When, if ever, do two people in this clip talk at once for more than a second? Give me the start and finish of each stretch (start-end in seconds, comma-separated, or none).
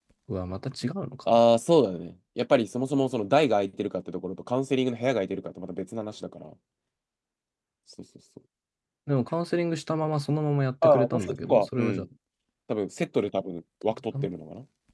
10.8-12.1